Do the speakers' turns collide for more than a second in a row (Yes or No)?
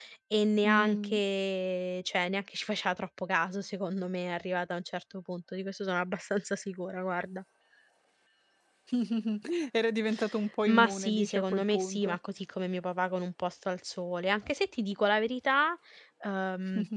Yes